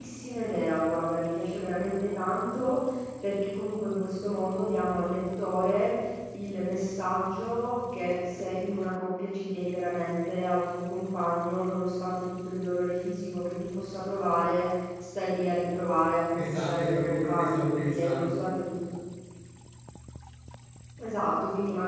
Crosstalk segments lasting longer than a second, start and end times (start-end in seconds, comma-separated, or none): 16.3-18.4